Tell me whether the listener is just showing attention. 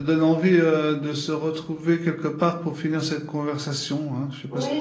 No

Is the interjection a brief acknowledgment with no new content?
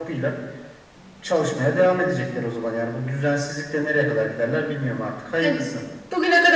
No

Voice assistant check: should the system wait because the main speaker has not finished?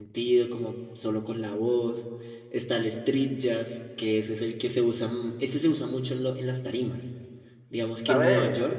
Yes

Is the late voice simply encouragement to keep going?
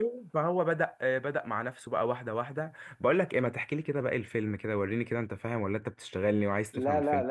No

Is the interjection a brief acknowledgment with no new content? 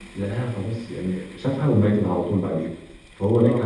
Yes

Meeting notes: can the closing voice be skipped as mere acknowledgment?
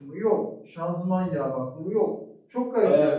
No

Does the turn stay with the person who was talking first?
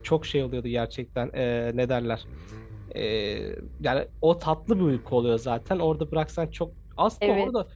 Yes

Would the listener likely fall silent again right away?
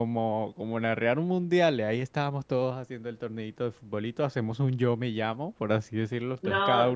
No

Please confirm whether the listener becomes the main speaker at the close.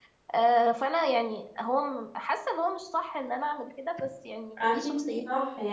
Yes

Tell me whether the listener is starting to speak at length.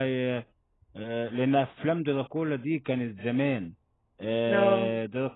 No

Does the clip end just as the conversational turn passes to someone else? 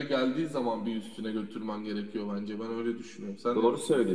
Yes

